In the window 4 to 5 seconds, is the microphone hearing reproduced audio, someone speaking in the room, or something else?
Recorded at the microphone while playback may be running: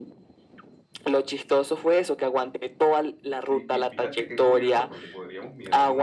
both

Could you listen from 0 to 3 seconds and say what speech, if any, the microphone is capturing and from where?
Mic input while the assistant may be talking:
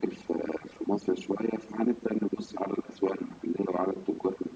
echo only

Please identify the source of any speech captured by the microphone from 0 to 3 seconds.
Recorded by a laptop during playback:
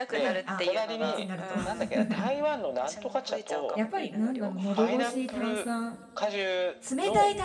both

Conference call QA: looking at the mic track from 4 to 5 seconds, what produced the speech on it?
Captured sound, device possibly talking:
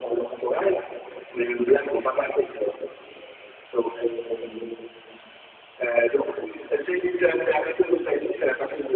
echo only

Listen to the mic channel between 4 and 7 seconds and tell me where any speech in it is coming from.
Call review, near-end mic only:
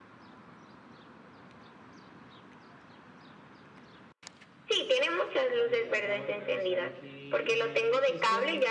both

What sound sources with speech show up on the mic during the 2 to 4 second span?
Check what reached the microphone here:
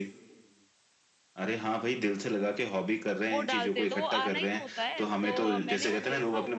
both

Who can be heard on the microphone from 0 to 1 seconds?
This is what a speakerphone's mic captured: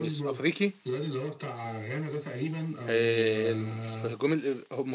both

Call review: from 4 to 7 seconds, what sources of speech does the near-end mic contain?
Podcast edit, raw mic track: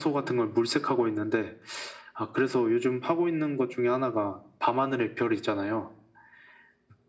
echo only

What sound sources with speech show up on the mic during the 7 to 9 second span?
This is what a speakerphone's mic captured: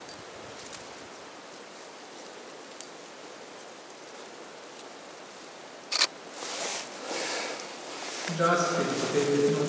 user only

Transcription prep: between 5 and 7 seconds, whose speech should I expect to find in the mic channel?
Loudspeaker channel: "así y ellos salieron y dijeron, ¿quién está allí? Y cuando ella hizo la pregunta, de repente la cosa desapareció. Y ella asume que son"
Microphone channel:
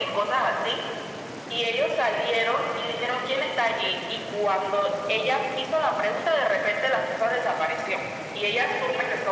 echo only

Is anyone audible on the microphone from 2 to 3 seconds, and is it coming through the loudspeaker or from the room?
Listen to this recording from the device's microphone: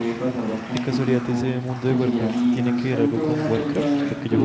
both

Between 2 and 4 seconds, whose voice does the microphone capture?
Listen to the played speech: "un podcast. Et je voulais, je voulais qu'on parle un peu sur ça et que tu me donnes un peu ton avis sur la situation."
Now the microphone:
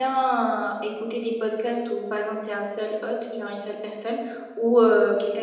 user only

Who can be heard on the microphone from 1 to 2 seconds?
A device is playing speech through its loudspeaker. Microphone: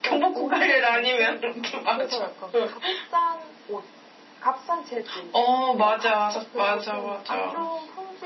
both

